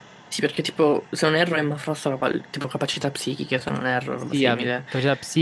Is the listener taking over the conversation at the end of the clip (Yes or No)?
Yes